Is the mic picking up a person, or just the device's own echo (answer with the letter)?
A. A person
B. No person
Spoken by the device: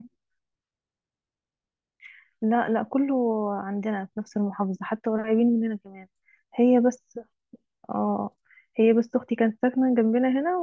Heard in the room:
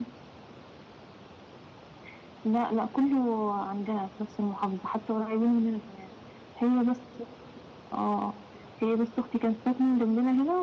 B